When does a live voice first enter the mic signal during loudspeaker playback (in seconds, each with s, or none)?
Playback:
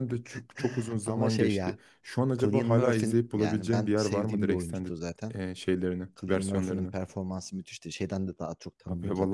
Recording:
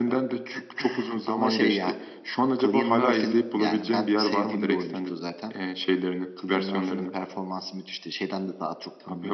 none